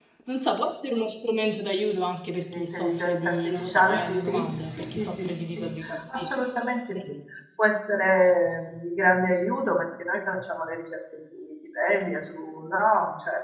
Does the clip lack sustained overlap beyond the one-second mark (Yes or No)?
No